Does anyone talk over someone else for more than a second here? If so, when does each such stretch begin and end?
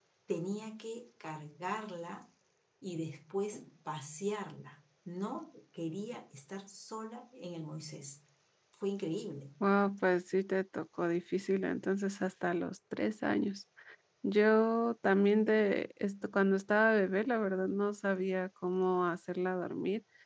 none

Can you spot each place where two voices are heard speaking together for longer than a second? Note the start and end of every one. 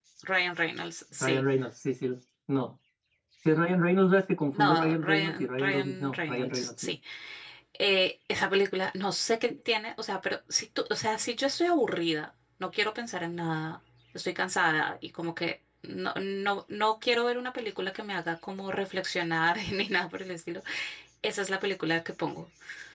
4.5-6.7

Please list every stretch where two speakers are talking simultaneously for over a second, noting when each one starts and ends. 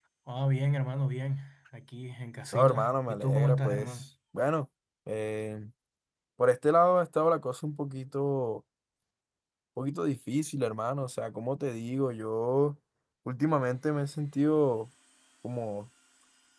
2.5-4.0

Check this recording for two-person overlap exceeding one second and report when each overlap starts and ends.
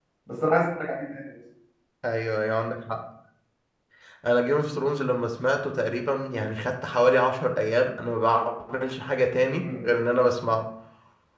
none

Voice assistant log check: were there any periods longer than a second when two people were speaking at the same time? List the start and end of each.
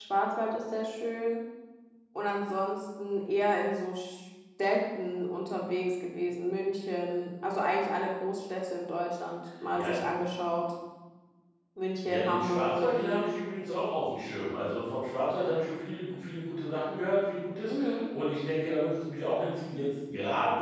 12.1-13.3

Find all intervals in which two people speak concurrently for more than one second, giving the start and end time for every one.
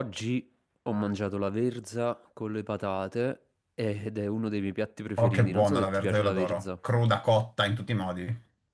5.2-6.6

